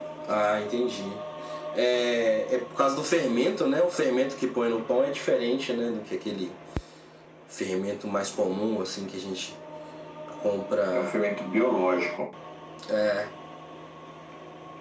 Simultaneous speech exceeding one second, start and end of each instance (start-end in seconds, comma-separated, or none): none